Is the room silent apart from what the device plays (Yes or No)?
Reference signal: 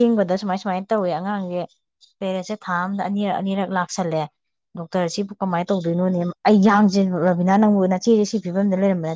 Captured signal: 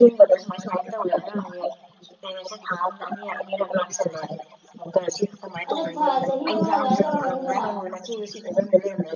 No